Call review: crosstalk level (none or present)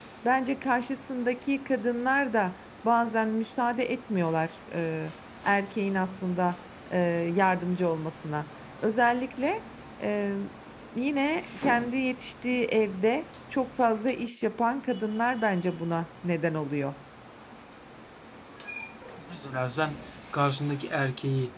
none